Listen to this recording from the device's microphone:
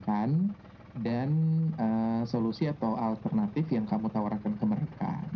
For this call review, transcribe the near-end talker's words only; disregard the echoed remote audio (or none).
none